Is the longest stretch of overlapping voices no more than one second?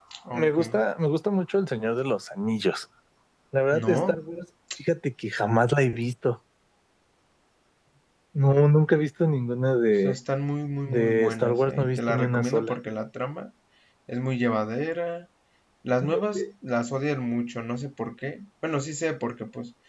No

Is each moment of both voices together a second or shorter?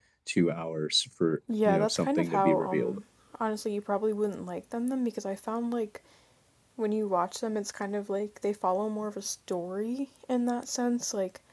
No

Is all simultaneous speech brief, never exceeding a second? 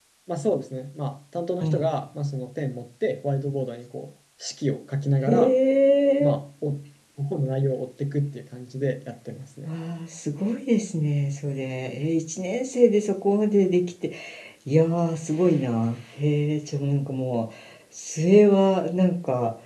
Yes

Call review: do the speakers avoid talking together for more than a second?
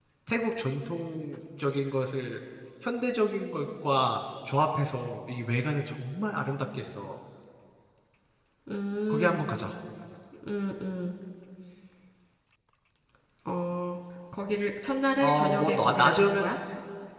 No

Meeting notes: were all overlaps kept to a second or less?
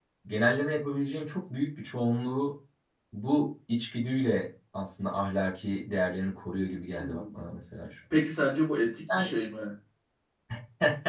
Yes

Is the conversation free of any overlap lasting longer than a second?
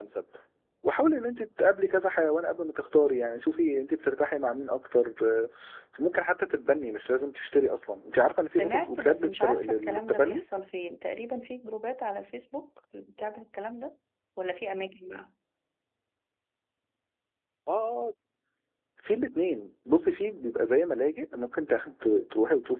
No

